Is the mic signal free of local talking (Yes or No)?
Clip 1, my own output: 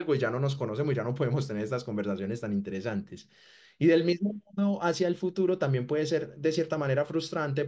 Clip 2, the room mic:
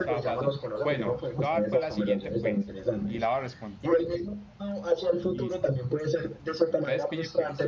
No